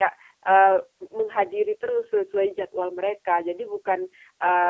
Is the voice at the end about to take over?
No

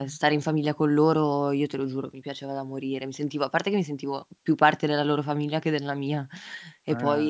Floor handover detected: No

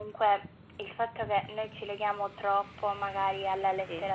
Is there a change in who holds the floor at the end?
No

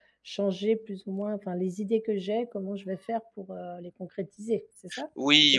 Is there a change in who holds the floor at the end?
Yes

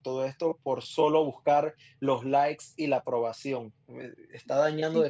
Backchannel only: Yes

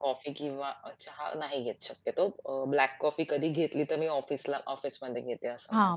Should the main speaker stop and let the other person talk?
Yes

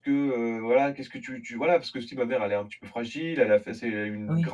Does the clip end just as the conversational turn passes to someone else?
No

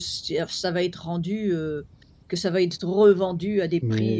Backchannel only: No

